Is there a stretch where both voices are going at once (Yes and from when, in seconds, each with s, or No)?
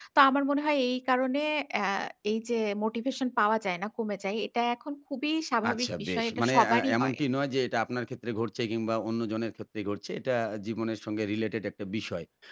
Yes, from 5.6 s